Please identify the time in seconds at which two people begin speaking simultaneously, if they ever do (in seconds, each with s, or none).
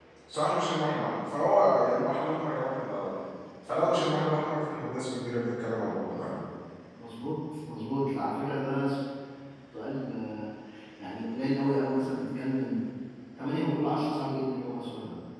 none